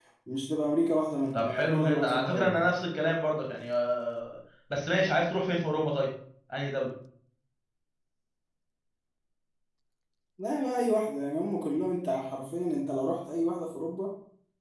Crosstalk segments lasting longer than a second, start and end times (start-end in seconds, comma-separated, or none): 1.3-2.7